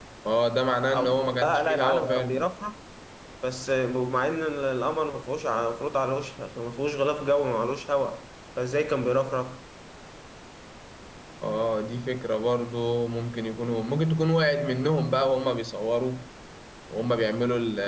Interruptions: present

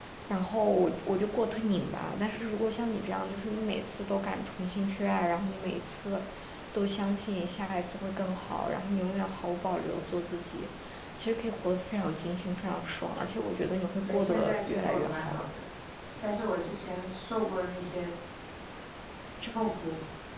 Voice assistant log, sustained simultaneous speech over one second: present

